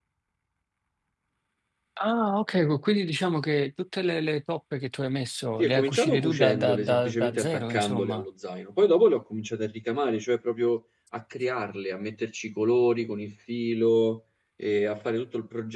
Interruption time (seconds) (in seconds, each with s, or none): 5.6 s